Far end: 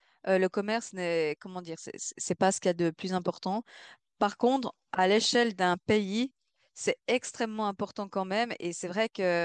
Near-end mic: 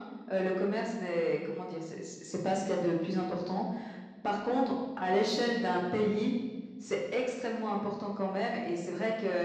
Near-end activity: none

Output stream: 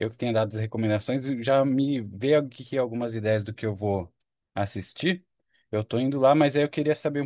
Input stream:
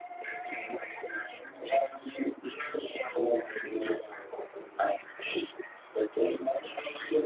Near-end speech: none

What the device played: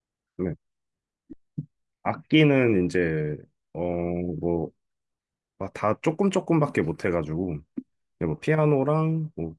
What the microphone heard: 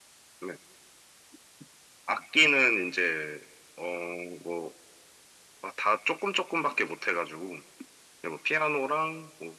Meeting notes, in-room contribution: none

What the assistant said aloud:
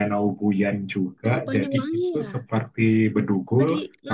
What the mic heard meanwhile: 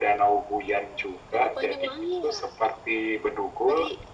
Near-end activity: none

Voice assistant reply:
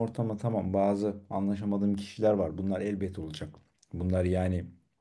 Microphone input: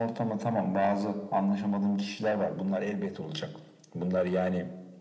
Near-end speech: none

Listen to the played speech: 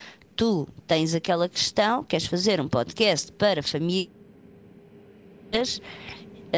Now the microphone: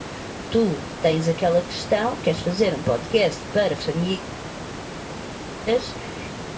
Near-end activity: none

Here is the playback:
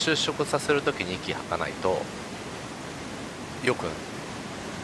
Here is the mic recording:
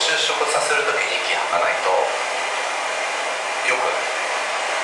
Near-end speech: none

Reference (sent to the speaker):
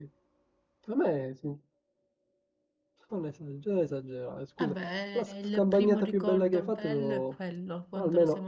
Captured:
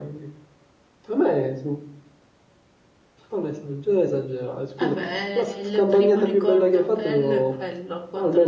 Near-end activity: none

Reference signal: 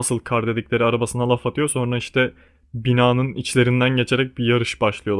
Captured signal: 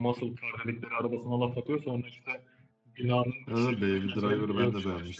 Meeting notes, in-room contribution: present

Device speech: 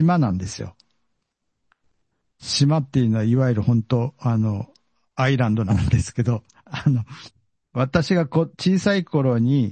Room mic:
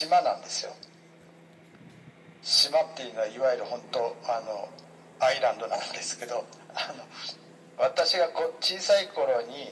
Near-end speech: none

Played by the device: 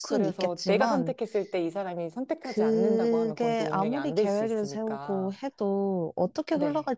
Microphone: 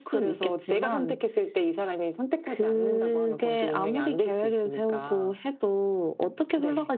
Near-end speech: none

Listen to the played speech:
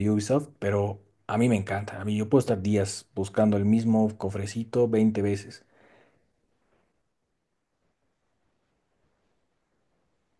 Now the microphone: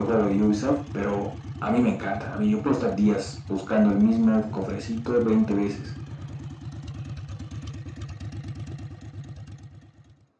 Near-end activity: none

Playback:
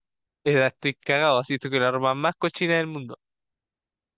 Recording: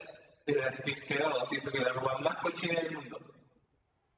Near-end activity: none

